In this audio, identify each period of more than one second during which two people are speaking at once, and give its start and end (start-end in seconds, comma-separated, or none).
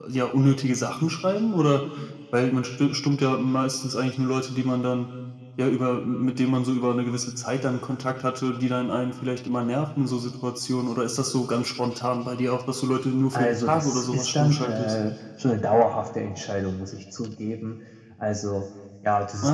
13.3-15.0